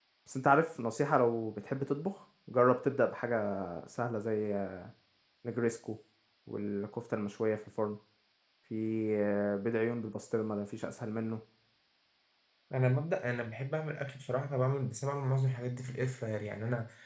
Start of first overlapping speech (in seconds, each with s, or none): none